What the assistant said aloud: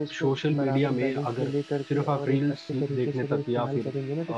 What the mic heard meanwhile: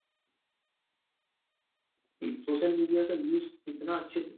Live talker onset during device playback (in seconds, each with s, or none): 2.2 s